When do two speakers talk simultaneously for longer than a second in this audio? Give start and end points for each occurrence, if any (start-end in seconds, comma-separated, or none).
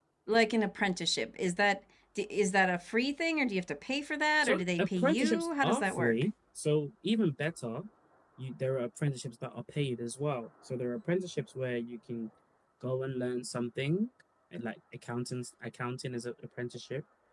4.4-6.1